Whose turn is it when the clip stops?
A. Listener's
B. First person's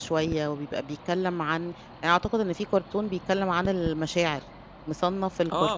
A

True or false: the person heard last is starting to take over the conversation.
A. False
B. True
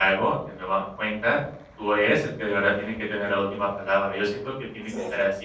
A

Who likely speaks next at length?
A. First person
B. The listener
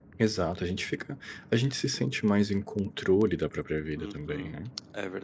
B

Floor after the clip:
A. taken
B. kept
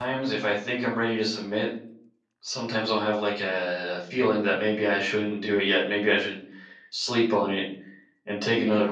B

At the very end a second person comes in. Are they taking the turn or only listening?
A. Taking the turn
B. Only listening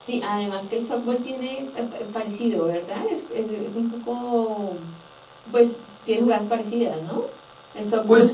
A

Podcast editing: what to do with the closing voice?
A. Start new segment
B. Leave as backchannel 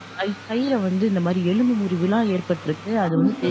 B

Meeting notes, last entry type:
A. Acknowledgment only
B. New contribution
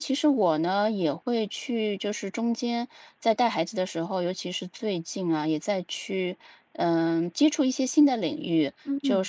A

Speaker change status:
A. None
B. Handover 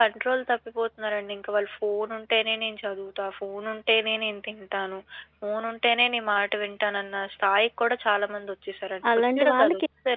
B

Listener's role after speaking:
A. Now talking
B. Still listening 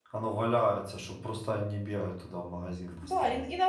A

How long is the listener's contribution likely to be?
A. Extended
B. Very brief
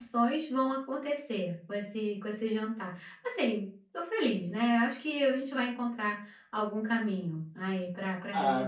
A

